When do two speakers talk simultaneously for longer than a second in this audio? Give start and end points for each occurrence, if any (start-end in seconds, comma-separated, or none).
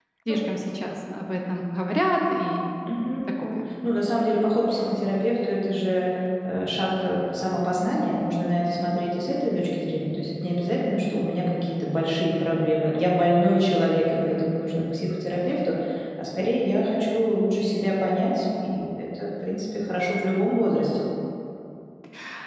none